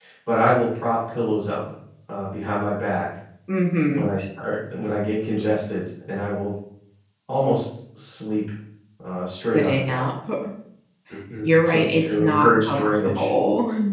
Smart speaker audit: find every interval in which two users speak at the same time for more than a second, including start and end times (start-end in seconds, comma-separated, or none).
11.7-13.3